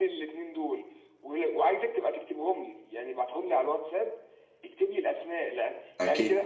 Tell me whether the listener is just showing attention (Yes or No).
Yes